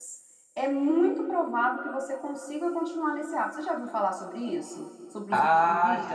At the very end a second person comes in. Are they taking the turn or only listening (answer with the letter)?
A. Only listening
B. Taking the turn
B